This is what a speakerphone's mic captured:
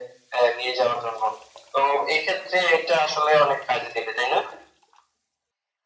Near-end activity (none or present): none